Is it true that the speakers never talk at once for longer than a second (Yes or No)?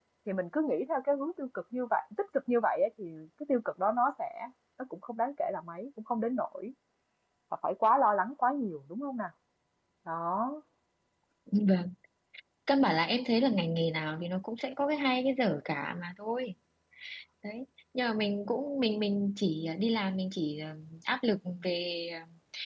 Yes